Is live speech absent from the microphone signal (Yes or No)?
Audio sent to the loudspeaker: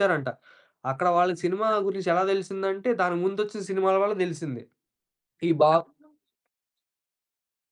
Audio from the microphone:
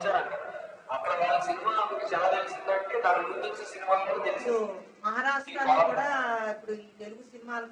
No